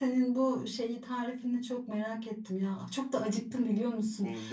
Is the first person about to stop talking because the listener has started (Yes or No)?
No